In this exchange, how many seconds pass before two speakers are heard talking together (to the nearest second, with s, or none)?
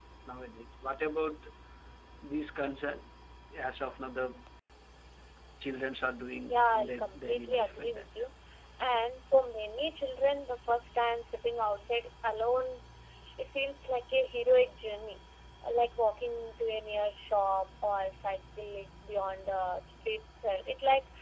6 s